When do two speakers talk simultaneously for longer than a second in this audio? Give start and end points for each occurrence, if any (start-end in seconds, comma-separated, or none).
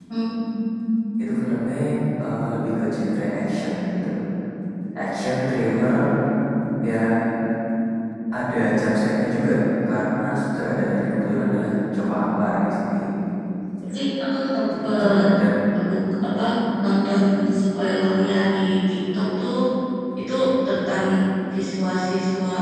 none